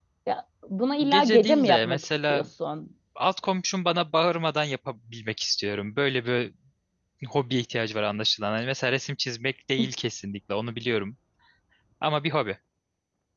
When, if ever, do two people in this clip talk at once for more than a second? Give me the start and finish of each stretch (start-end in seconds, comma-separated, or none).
1.1-2.4